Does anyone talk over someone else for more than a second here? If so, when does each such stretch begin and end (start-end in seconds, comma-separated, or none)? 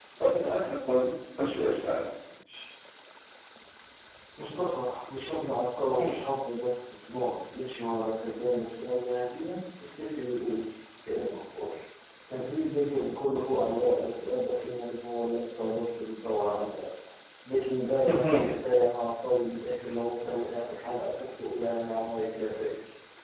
none